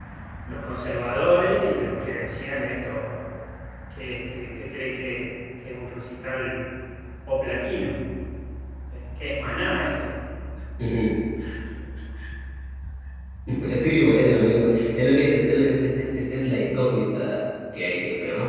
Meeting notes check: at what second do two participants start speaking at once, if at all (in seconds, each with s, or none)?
none